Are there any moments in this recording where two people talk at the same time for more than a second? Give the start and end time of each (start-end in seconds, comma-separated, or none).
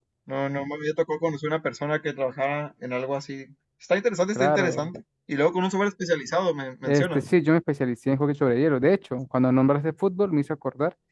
none